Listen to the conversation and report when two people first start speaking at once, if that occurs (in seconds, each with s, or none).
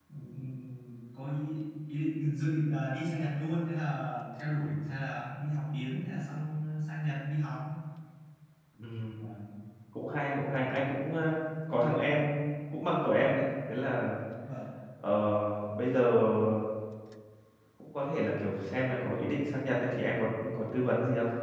none